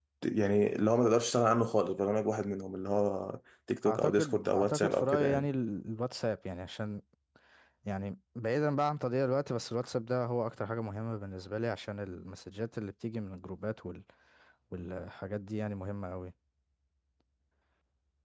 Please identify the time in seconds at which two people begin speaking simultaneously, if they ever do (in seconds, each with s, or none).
3.8 s